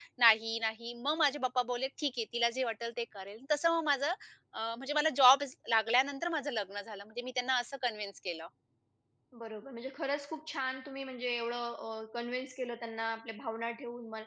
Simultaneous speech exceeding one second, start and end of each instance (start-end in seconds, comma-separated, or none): none